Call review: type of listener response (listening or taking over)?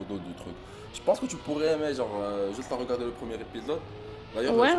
listening